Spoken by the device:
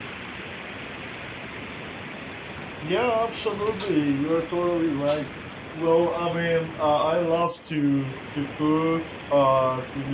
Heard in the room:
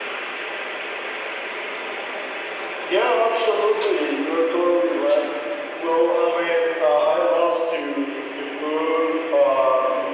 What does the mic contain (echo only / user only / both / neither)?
echo only